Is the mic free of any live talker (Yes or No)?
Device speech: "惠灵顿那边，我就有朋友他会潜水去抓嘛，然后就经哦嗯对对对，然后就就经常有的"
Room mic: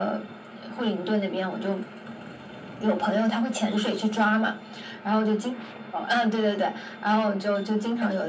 Yes